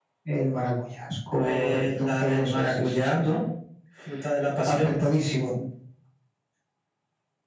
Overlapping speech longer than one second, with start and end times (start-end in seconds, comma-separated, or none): 1.4-3.3